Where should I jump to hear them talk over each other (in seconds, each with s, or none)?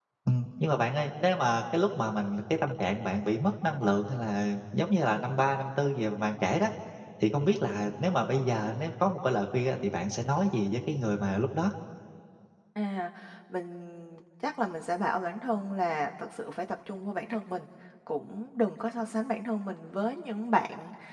none